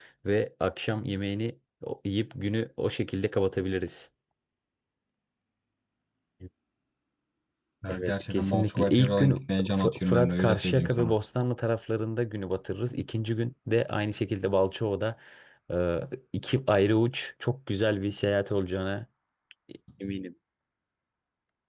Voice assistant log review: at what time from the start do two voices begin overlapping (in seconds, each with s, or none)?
7.9 s